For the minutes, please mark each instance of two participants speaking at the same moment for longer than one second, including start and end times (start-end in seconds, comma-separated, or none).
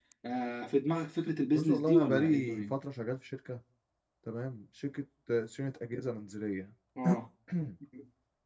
1.5-2.7